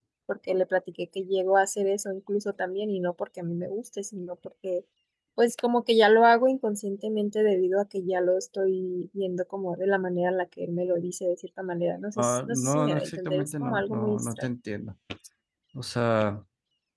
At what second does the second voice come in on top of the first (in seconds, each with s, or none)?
12.2 s